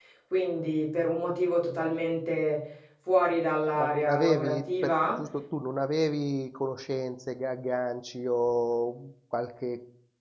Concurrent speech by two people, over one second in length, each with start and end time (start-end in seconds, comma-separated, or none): 3.8-5.2